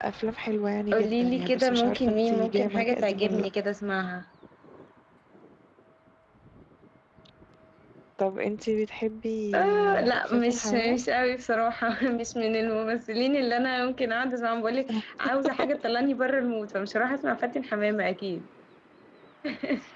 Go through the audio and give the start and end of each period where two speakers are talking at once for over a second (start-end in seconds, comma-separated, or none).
0.9-3.5, 9.5-11.0